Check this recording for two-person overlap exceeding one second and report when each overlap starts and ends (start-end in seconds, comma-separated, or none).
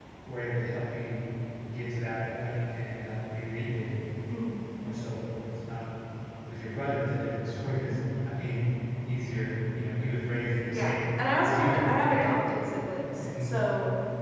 10.7-12.3